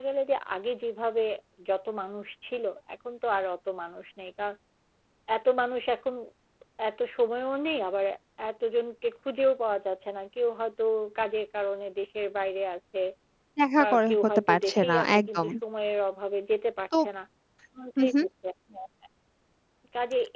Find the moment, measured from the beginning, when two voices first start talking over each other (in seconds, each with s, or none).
13.8 s